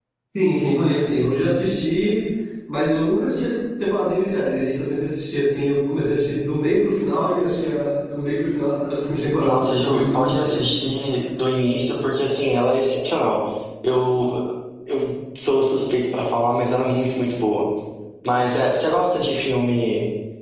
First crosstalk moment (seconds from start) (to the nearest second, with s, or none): 9 s